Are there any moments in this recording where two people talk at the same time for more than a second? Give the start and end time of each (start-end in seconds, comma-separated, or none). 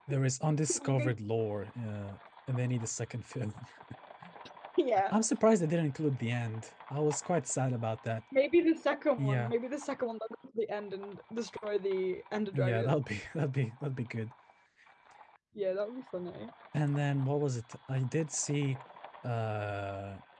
none